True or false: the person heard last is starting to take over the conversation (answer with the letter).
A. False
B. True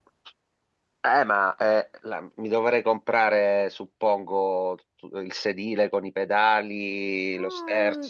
B